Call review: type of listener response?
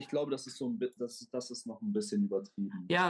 taking over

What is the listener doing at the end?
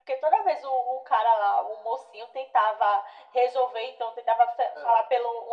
listening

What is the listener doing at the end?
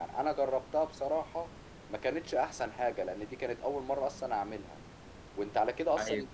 listening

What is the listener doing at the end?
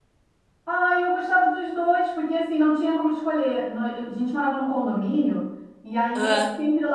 listening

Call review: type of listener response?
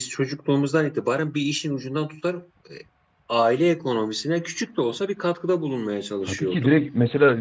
taking over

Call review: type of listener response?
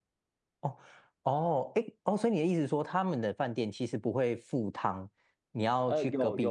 taking over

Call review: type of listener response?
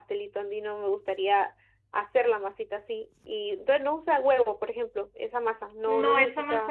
taking over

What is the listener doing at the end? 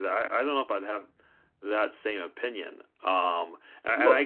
listening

